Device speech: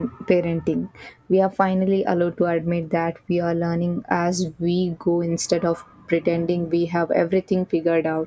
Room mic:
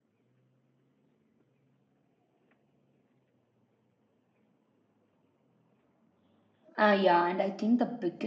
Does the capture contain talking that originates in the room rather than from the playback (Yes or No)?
Yes